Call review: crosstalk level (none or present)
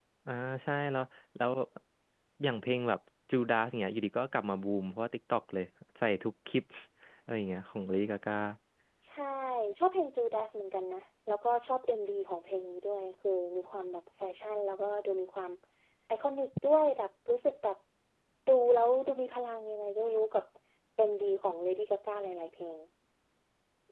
none